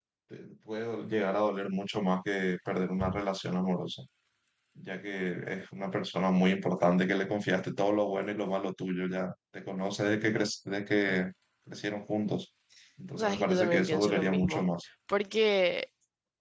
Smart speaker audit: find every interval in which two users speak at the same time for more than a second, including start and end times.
13.2-14.6

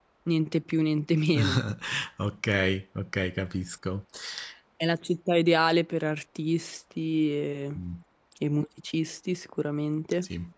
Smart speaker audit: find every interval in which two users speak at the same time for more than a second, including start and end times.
none

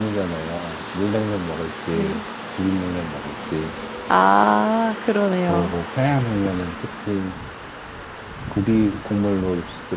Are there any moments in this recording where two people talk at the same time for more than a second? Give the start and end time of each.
none

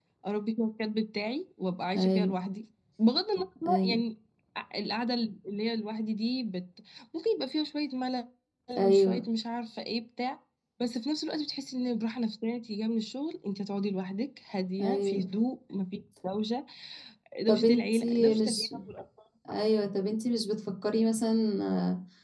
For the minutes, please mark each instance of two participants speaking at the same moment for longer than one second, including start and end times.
17.5-18.7

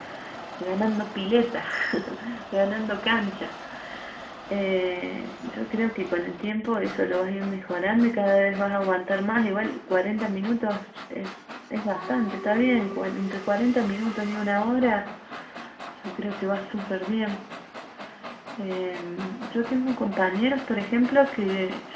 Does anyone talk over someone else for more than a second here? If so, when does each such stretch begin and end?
none

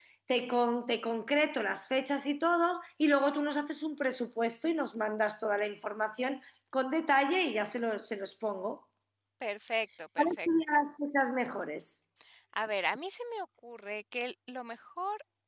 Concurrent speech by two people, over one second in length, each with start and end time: none

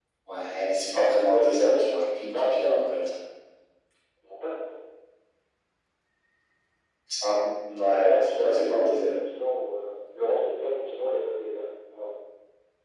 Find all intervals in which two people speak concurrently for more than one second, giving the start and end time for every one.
1.3-2.9, 7.8-9.1

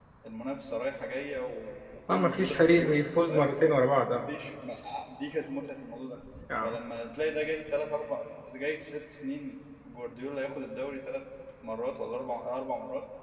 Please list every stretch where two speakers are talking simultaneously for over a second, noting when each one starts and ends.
2.1-3.5

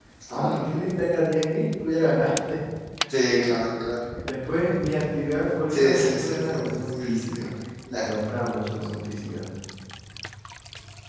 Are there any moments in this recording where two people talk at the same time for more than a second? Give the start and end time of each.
5.7-7.5

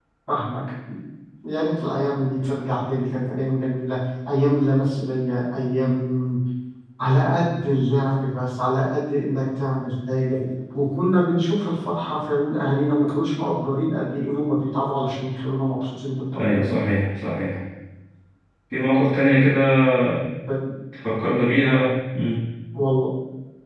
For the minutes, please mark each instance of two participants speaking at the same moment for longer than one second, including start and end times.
none

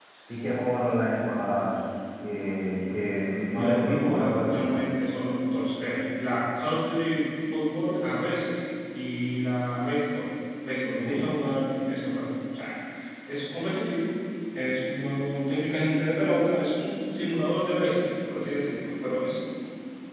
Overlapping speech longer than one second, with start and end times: 3.5-4.8

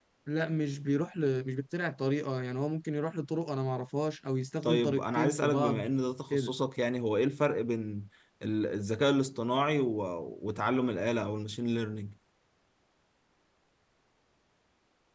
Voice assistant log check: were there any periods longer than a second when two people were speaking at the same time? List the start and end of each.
4.6-5.9

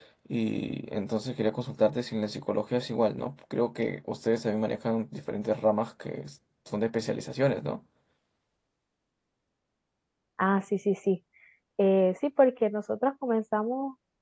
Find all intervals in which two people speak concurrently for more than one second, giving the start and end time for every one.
none

